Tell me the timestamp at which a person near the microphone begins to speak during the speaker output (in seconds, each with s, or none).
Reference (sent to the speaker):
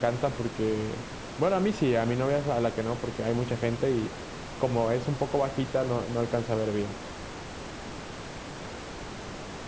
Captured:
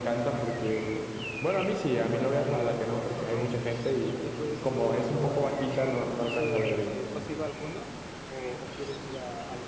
2.0 s